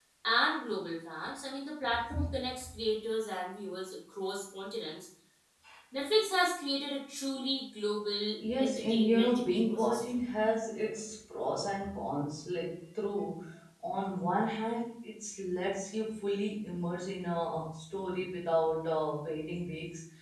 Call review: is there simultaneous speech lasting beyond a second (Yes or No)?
Yes